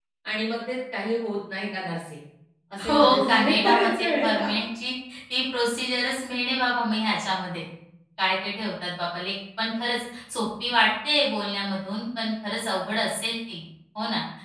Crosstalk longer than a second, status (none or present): present